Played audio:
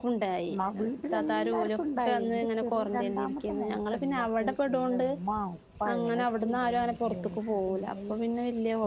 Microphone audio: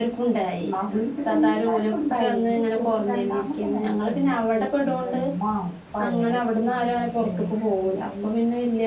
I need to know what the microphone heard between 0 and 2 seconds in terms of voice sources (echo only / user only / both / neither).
echo only